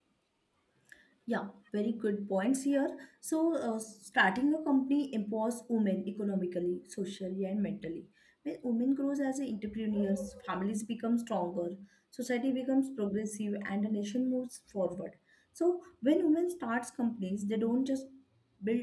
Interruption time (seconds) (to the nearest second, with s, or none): none